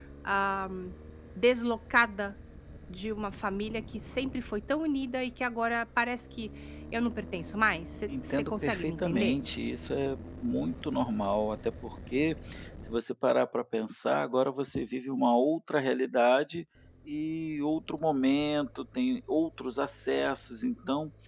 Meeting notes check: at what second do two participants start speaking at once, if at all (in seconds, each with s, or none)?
8.1 s